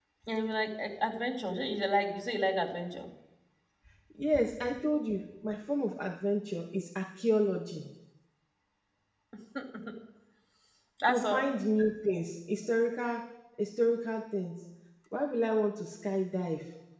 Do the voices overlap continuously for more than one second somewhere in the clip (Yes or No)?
No